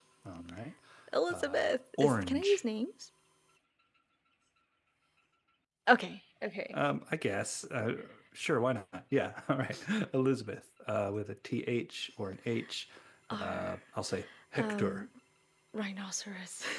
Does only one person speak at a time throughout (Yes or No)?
No